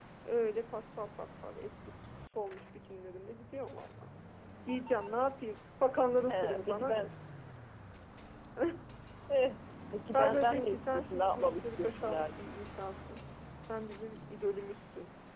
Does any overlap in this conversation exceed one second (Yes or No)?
Yes